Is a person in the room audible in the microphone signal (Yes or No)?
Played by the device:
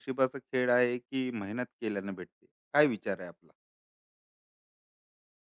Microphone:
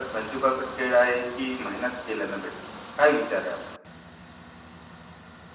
No